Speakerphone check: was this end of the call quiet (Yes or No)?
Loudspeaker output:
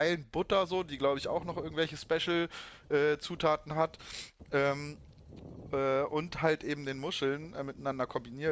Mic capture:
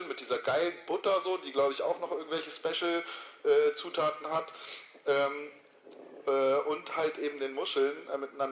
Yes